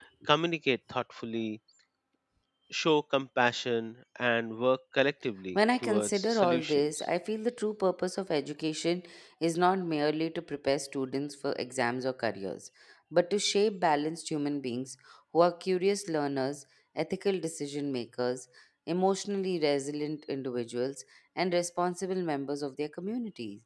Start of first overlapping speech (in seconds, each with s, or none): 5.5 s